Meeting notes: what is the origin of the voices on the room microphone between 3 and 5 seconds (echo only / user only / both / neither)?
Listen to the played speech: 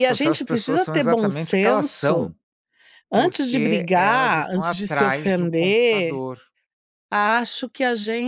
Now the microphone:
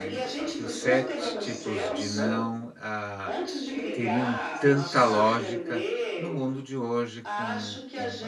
both